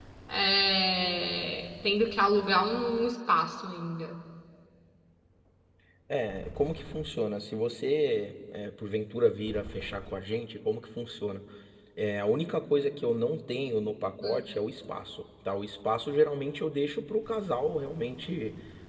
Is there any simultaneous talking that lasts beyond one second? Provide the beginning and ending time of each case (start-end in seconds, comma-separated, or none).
none